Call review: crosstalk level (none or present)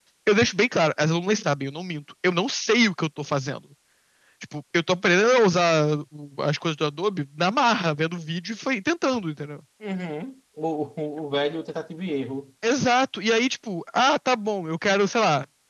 none